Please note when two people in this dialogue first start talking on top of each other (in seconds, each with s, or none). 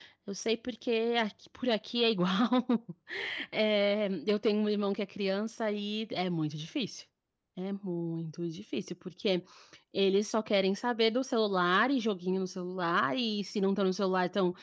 none